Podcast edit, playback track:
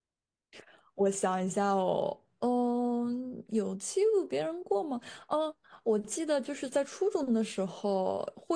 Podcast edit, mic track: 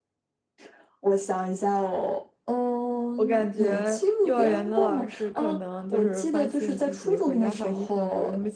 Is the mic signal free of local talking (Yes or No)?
No